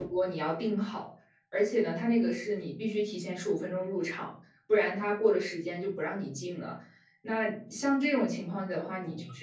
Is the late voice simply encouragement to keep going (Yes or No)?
Yes